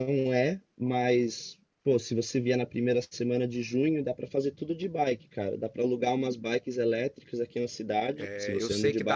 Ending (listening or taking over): taking over